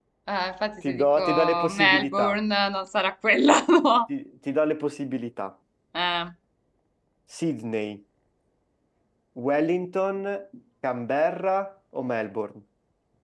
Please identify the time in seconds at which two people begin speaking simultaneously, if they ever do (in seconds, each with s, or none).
0.8 s